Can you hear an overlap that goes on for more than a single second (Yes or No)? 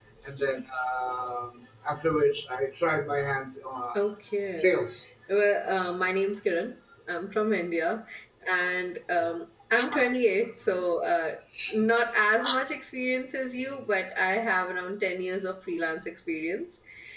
No